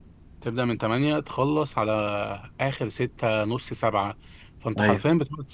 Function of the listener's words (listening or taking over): listening